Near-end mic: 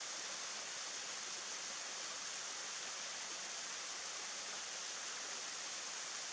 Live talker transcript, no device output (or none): none